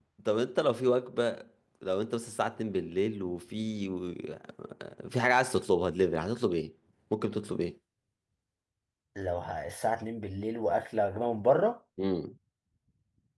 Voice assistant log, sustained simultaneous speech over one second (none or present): none